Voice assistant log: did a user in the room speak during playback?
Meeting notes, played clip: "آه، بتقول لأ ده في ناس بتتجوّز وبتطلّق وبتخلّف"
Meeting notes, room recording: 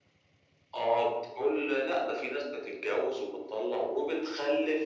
No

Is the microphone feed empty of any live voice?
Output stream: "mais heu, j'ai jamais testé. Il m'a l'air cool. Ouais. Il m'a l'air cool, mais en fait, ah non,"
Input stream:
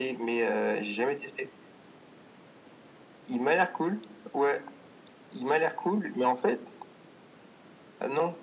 Yes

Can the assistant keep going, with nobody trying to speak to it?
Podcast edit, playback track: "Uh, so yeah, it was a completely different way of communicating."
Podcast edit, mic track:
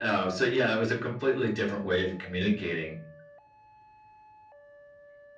Yes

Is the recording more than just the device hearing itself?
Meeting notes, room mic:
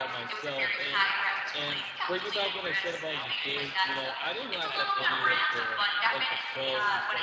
Yes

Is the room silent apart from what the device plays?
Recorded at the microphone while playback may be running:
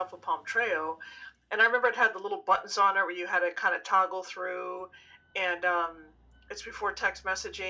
Yes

